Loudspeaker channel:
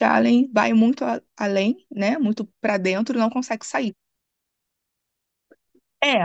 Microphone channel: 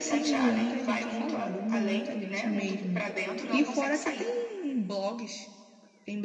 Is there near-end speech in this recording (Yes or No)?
Yes